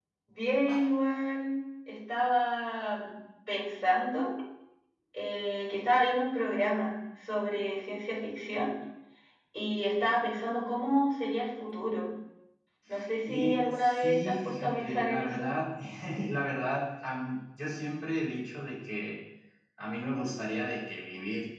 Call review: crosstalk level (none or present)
present